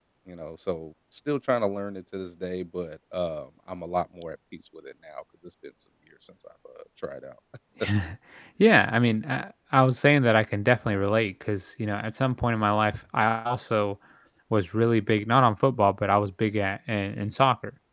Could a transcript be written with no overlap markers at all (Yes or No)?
Yes